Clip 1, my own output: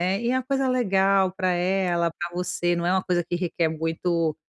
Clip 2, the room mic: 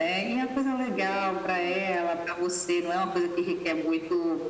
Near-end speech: present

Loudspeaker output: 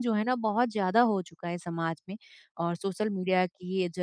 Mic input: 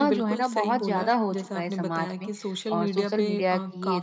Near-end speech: present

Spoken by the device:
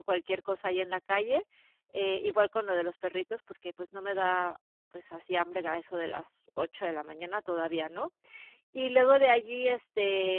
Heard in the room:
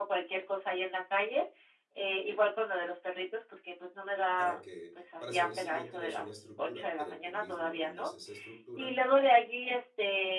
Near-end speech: present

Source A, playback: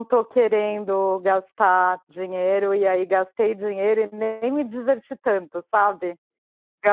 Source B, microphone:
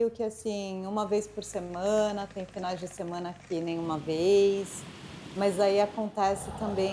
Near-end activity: present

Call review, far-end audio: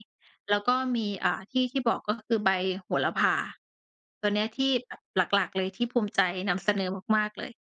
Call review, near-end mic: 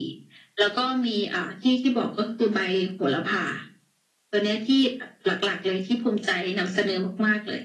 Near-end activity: none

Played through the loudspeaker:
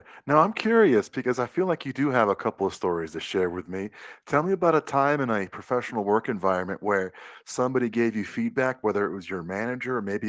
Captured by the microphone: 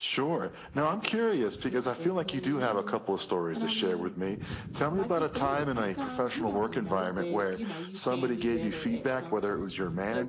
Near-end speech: present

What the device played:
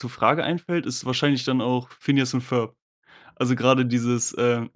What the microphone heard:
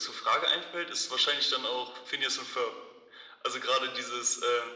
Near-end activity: none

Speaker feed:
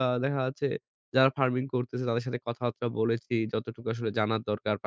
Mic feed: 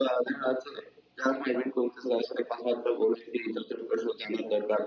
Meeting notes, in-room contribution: none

